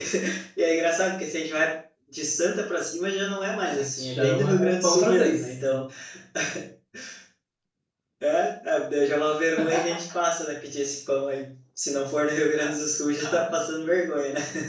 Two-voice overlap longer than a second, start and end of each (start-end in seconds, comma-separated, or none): 3.6-5.4